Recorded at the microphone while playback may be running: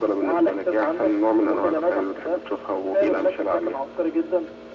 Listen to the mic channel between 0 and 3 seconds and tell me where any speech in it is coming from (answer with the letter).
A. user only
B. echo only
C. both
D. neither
B